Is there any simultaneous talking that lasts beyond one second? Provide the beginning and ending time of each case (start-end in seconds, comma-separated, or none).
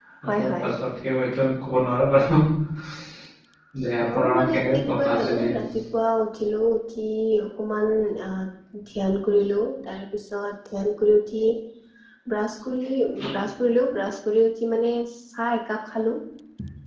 4.1-5.6